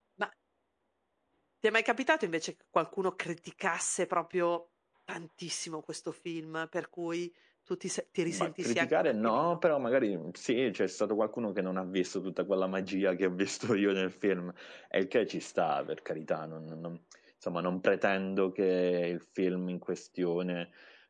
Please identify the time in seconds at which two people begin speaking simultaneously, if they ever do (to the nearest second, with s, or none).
8 s